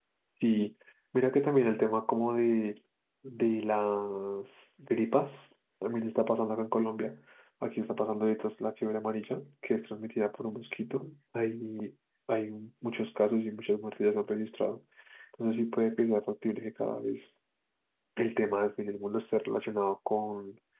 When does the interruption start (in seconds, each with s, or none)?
none